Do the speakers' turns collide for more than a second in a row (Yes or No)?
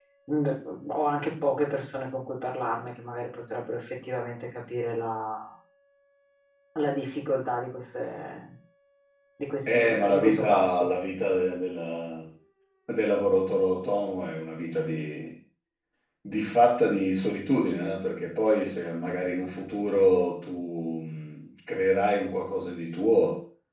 Yes